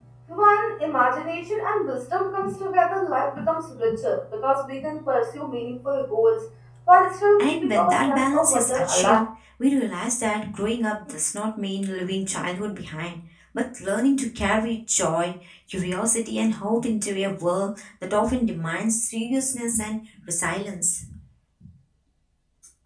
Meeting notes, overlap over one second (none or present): present